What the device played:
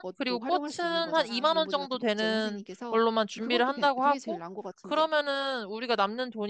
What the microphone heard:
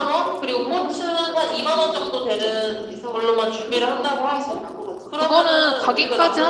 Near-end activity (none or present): present